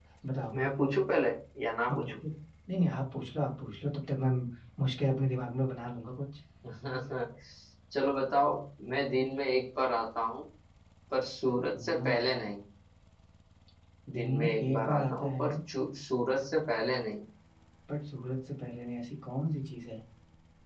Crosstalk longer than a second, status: present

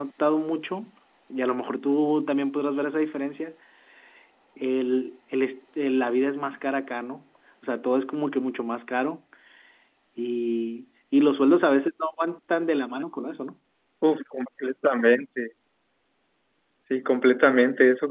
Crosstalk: none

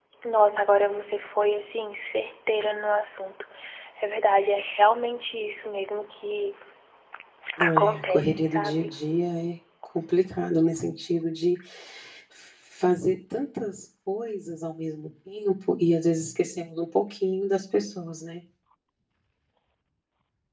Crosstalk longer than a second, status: present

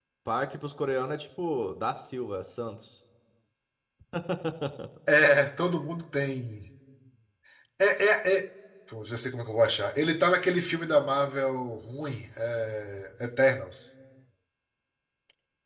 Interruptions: none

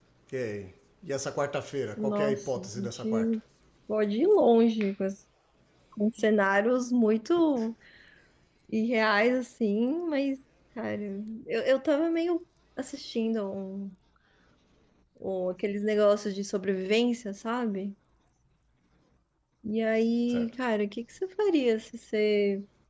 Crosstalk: present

